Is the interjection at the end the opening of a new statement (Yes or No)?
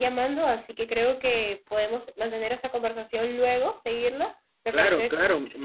Yes